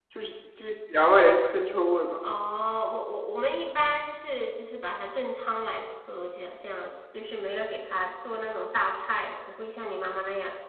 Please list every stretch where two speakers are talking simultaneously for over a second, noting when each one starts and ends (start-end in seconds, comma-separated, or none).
none